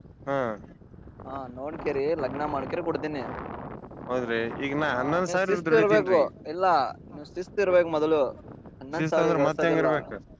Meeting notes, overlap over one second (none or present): present